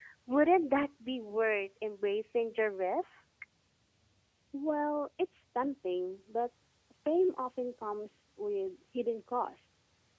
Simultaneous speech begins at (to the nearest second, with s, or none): none